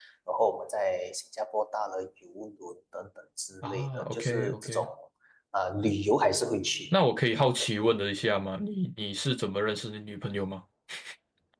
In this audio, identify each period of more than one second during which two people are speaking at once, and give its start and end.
3.6-4.8

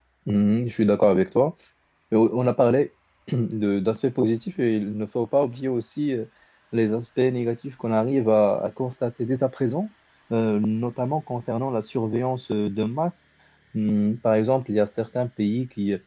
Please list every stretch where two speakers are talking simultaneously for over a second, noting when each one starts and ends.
none

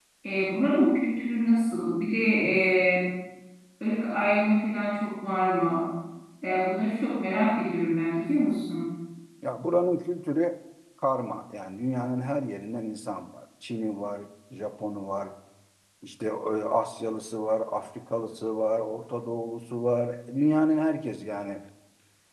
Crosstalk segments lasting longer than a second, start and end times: none

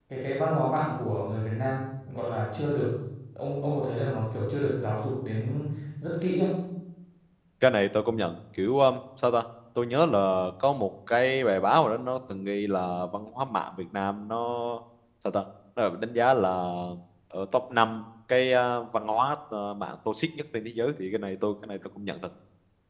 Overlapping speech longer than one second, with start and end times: none

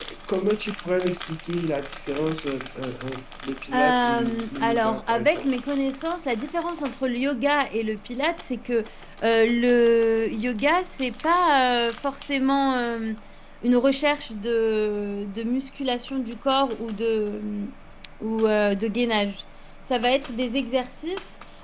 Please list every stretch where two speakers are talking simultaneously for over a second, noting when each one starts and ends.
3.7-5.5

